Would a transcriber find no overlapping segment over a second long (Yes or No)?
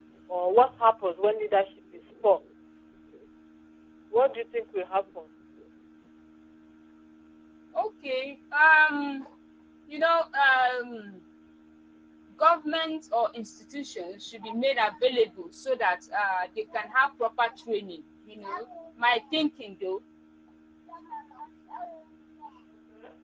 Yes